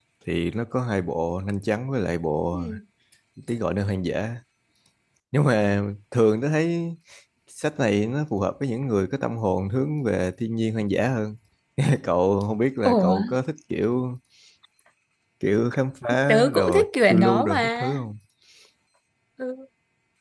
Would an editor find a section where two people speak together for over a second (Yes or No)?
Yes